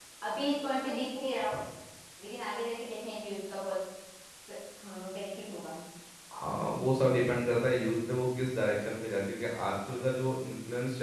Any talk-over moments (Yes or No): No